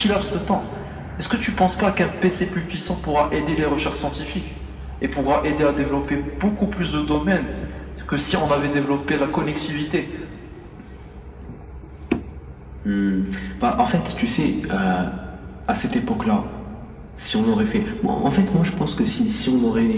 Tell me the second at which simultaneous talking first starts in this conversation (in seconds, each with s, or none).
none